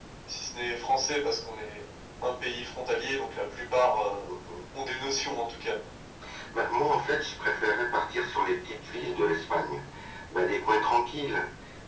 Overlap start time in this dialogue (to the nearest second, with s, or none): none